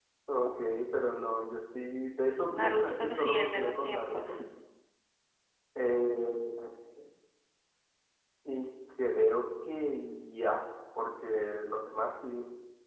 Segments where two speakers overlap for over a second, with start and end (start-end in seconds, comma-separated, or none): 2.5-4.3